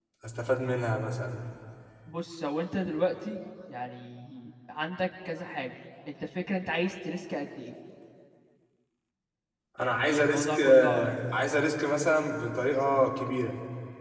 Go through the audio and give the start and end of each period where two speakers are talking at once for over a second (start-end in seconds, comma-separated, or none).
9.8-11.2